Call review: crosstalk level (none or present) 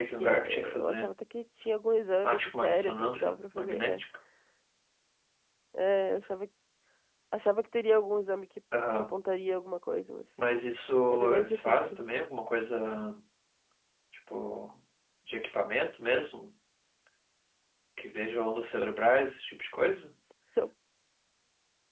present